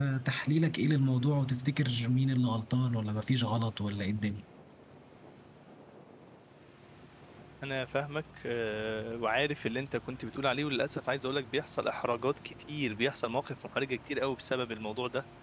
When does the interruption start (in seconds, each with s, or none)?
none